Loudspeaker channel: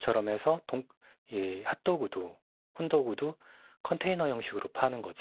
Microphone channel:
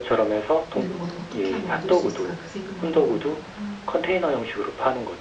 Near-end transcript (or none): 네, 어, 어떻게 하면 얻을 수 있을까 그 생각만 하고 있다. 아,